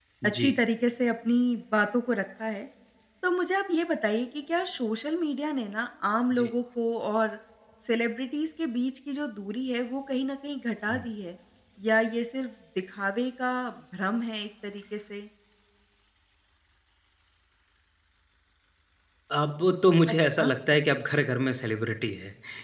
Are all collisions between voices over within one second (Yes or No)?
Yes